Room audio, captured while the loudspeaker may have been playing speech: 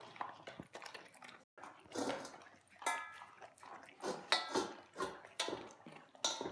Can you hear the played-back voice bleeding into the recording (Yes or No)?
No